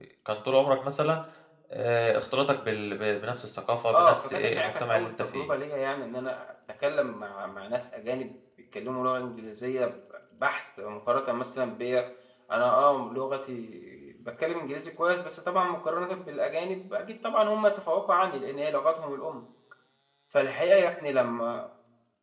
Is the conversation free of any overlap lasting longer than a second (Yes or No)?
No